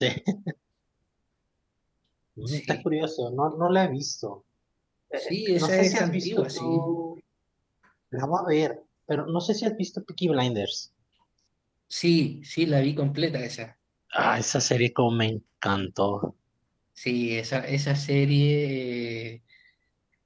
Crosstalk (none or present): present